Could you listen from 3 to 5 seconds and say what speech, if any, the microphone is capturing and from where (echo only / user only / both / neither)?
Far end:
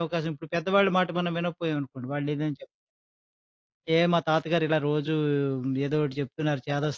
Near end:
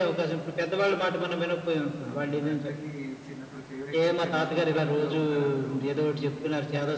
both